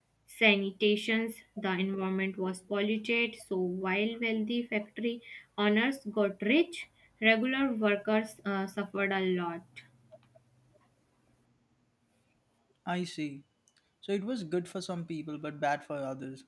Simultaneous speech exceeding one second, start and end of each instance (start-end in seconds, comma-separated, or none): none